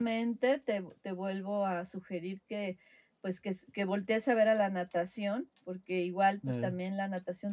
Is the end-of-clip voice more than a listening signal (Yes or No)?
No